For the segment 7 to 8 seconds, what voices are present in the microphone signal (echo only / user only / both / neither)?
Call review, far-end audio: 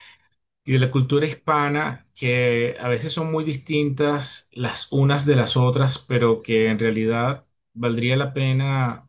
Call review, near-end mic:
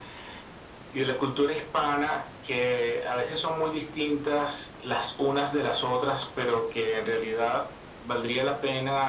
echo only